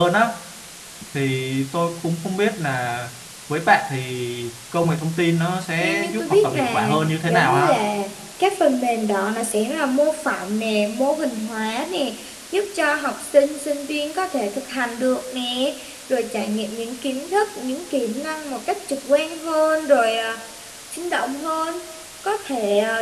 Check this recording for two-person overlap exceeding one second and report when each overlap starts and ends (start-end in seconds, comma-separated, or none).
5.8-7.7